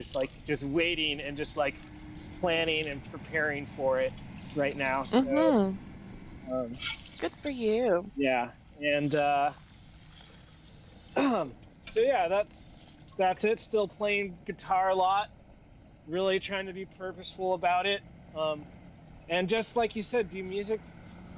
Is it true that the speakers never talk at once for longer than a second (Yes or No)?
Yes